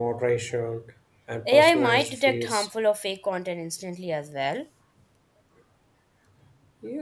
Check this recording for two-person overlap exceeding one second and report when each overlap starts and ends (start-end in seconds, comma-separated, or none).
1.4-2.7